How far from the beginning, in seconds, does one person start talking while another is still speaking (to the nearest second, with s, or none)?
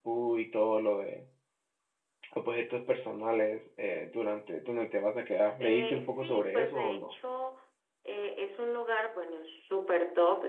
6 s